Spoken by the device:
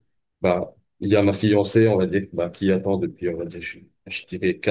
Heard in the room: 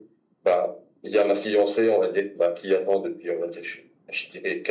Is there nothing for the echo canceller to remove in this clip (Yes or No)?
No